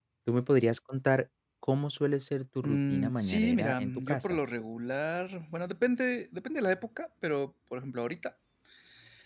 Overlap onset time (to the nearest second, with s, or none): 3 s